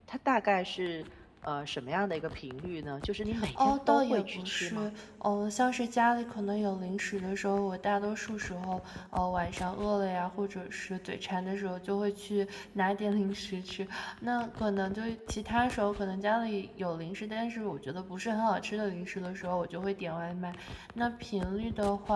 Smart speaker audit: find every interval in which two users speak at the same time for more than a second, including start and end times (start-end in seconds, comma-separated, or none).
3.6-4.9